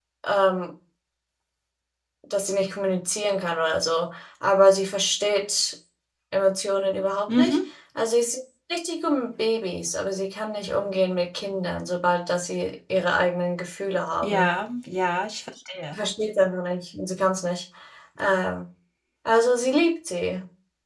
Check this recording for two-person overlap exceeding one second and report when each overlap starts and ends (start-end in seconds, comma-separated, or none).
none